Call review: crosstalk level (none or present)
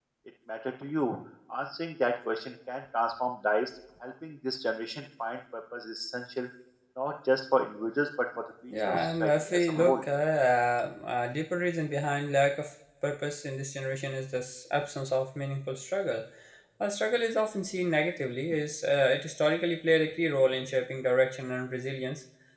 present